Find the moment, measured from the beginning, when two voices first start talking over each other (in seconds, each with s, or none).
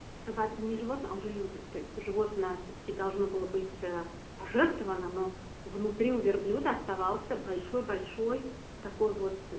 none